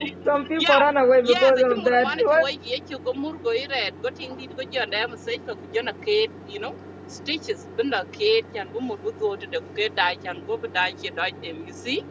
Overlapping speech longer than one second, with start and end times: 1.2-2.5

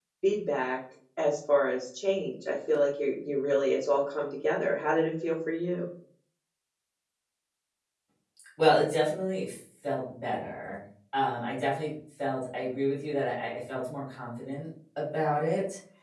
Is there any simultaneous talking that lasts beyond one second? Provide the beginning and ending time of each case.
none

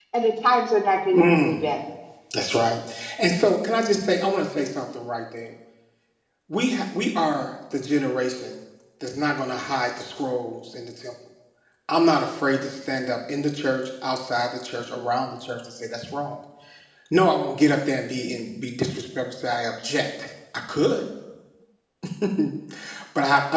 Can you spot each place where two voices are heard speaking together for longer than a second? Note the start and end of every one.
none

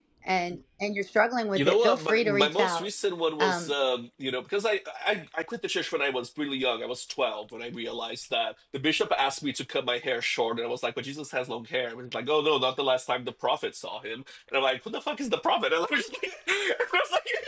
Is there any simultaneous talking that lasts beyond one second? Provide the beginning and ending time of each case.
1.6-2.9

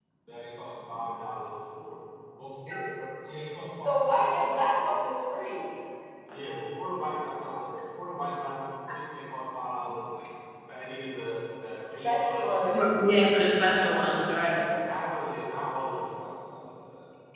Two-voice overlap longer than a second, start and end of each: none

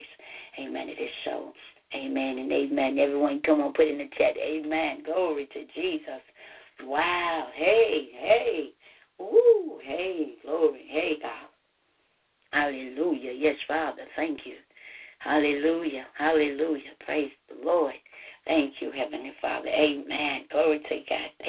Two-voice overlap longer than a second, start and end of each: none

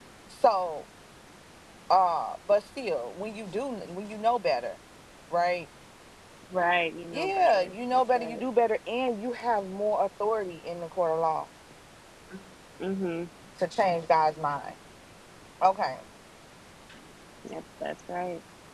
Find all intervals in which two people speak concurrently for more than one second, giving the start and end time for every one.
7.1-8.5

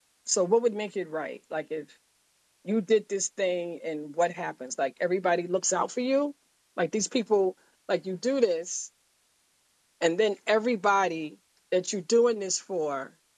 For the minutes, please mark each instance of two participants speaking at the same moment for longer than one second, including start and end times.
none

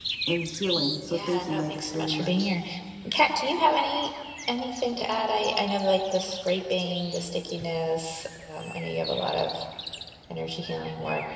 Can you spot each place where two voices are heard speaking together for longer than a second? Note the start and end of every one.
1.1-2.5

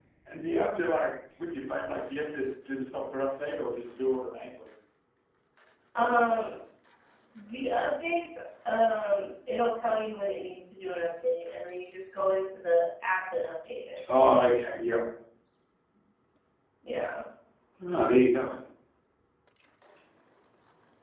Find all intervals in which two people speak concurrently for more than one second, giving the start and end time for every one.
none

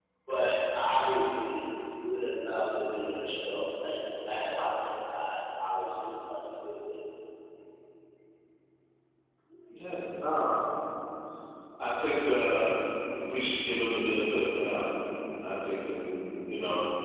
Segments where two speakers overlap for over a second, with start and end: none

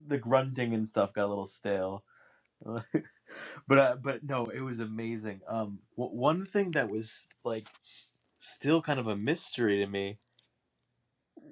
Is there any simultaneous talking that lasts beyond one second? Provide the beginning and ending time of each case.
none

